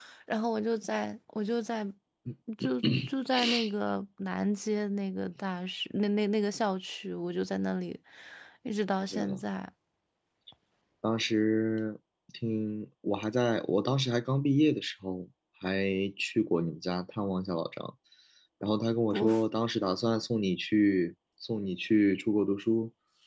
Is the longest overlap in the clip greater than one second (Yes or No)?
No